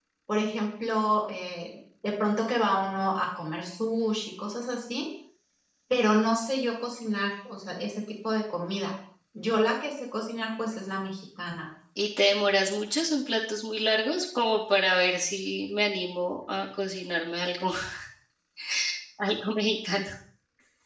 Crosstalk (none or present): none